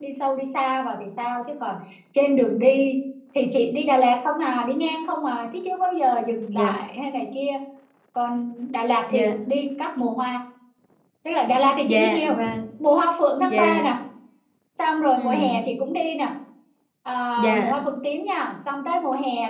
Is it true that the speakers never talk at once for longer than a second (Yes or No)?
Yes